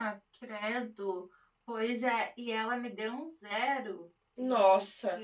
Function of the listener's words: listening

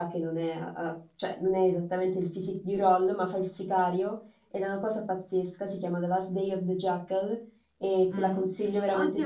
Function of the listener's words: taking over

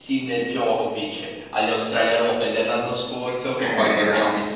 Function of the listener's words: listening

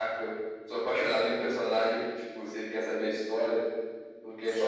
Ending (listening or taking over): taking over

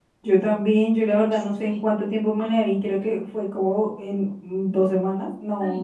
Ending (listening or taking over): taking over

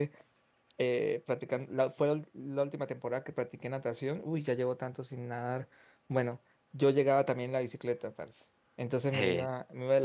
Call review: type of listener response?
listening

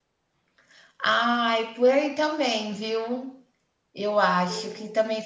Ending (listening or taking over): listening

